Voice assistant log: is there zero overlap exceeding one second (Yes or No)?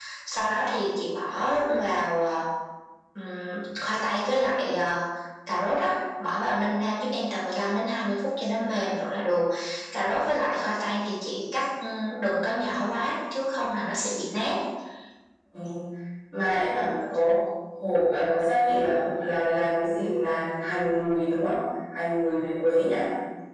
Yes